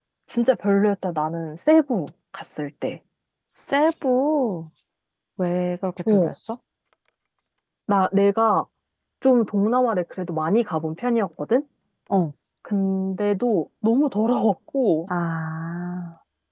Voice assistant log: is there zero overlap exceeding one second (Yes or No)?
Yes